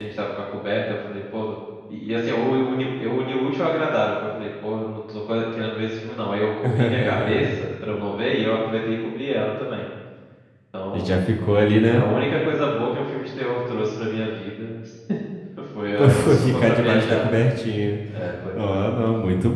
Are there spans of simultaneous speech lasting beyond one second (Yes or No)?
Yes